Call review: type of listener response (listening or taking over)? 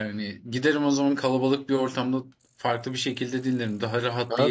taking over